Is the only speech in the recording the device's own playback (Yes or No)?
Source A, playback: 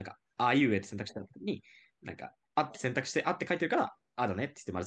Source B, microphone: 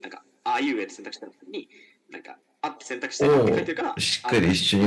No